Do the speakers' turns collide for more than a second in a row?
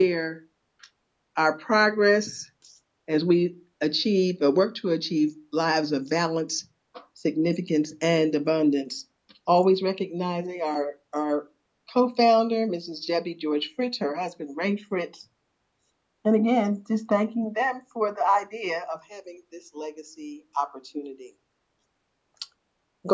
No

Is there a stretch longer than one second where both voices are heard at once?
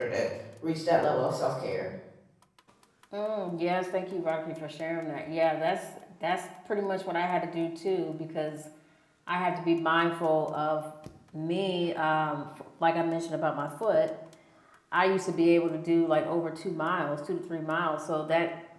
No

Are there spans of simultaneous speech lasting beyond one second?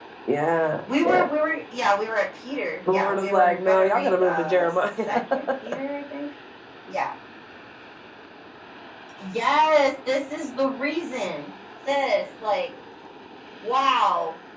Yes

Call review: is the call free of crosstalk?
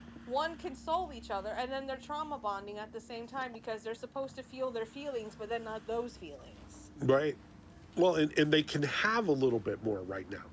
Yes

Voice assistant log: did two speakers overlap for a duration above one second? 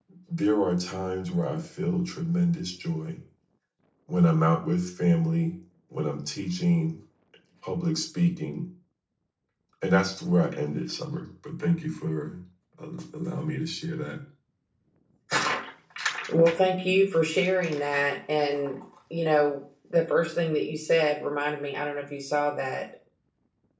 No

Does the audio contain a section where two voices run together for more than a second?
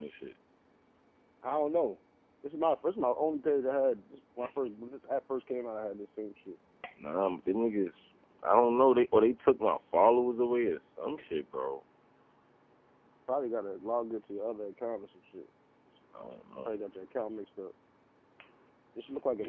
No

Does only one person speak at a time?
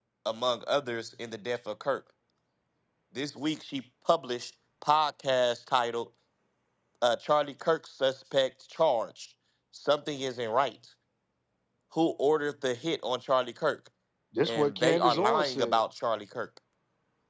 No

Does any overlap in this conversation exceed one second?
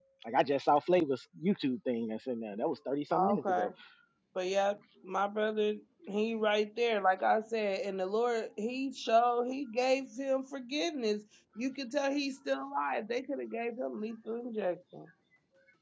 No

